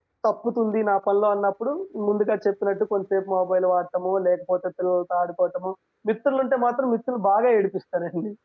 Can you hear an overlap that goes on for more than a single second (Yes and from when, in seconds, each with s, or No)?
No